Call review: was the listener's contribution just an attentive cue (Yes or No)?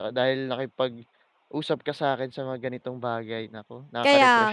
No